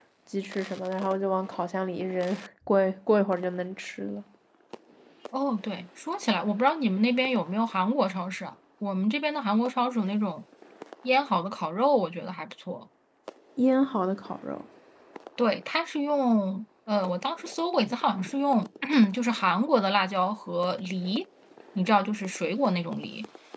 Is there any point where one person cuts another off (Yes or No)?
No